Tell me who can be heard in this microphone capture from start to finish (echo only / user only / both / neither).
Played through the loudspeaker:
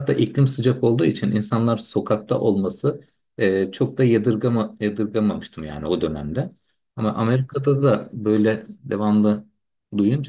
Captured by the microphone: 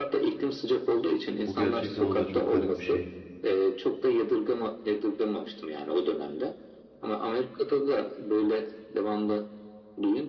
both